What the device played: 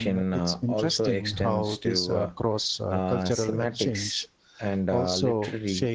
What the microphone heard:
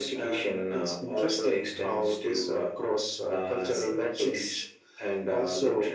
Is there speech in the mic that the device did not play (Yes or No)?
No